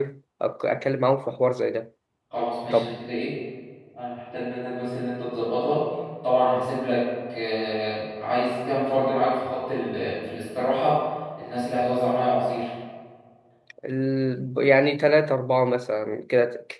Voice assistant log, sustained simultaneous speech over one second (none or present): none